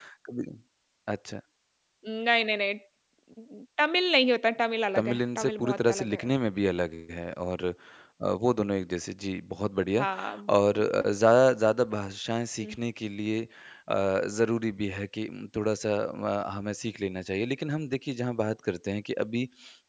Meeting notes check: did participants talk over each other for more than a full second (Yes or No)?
Yes